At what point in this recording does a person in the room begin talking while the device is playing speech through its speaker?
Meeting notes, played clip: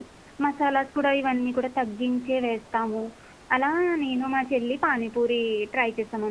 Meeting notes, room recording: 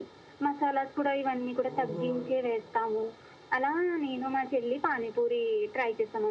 2 s

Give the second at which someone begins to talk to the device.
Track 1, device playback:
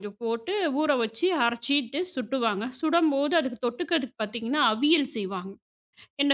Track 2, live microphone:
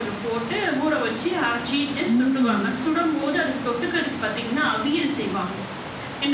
2 s

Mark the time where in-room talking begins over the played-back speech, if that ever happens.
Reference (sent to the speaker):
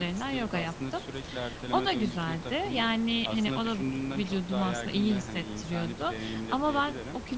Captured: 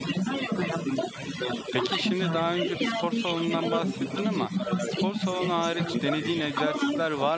2 s

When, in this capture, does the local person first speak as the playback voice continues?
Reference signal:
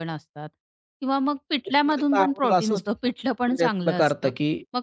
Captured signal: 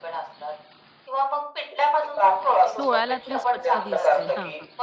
3 s

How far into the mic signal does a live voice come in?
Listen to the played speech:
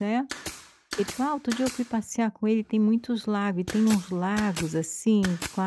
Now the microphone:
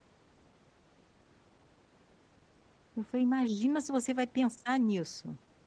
3 s

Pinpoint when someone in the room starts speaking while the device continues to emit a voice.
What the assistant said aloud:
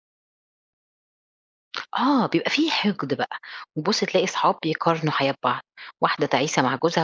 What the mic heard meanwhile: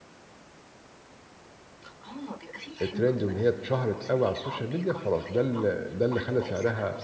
3 s

